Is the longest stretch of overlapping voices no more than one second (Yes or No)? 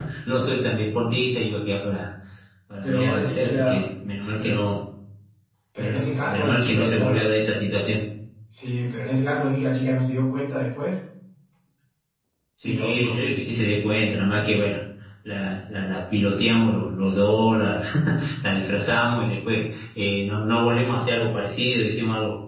No